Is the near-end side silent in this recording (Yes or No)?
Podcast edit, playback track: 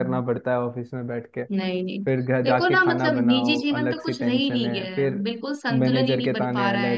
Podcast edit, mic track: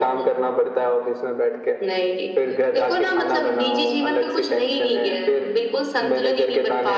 Yes